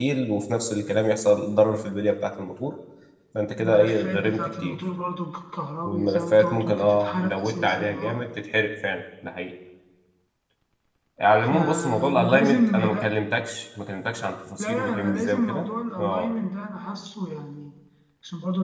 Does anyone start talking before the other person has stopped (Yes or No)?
Yes